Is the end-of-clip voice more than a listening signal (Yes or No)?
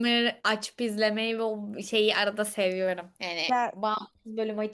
No